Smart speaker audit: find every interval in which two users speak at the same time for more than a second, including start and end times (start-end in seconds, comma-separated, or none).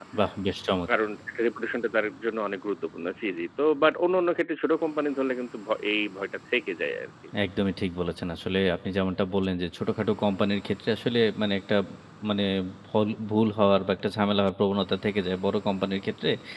none